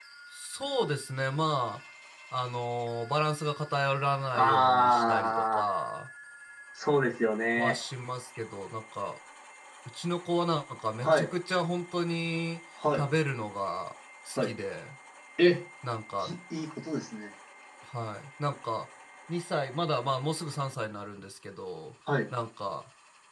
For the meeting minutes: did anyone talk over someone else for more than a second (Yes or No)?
Yes